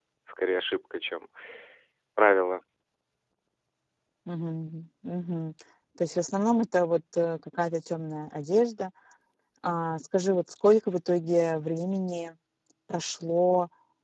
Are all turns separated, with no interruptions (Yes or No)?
Yes